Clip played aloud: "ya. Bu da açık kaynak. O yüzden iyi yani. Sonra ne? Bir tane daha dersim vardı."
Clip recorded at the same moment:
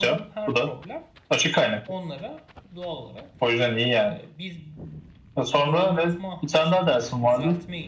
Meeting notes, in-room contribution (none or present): present